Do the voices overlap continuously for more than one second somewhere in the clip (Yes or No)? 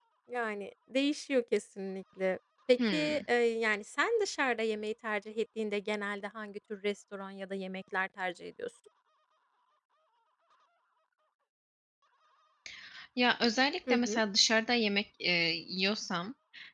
No